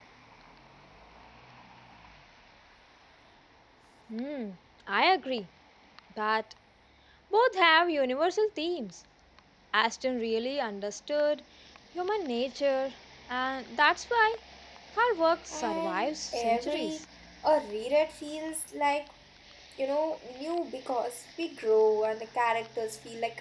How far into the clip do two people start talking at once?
15.5 s

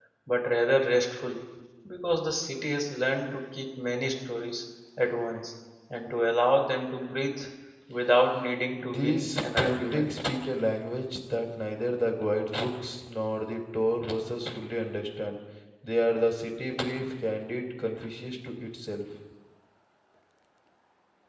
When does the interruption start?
8.8 s

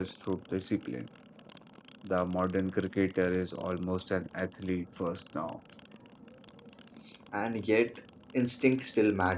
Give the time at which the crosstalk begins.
none

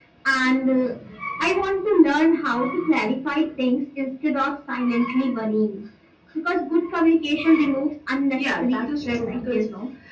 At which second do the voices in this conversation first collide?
8.4 s

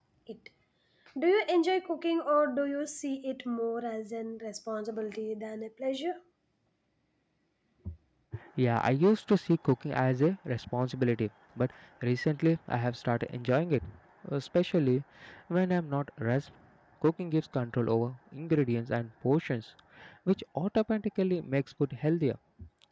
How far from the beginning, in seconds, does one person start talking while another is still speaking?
none

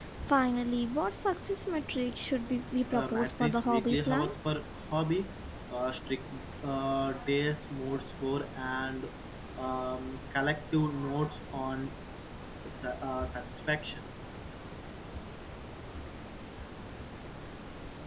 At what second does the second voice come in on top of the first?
2.9 s

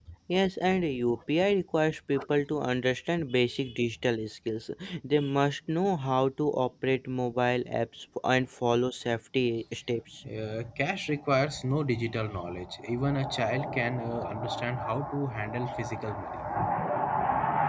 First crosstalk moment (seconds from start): none

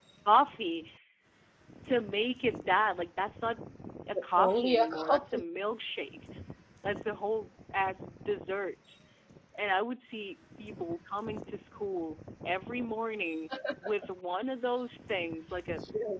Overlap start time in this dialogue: 4.1 s

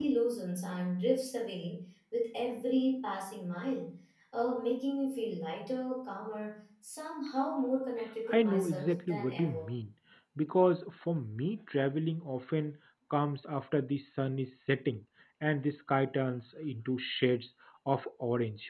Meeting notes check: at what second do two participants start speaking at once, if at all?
8.3 s

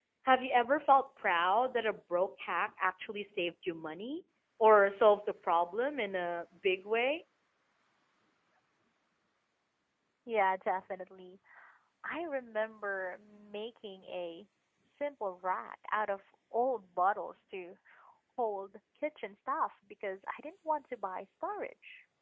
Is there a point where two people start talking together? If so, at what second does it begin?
none

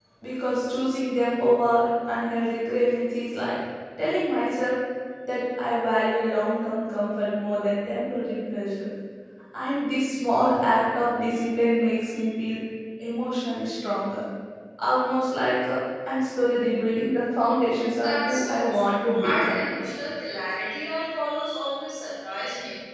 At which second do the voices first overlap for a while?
17.9 s

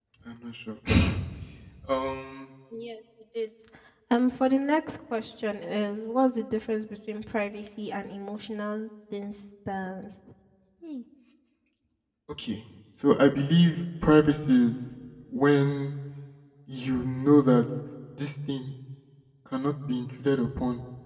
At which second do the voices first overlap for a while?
none

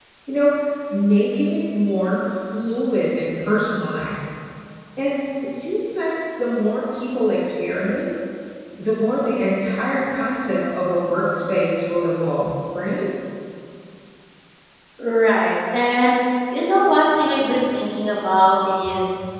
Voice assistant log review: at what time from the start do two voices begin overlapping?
none

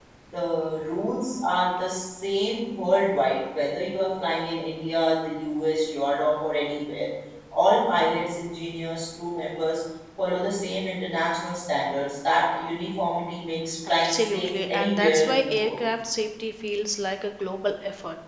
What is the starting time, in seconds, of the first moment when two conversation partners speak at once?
13.9 s

